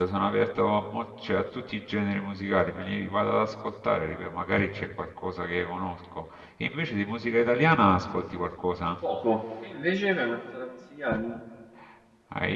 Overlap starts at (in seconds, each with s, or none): none